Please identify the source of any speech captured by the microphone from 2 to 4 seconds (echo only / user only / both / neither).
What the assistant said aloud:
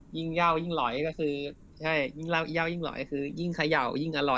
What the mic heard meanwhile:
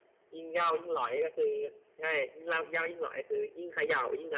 echo only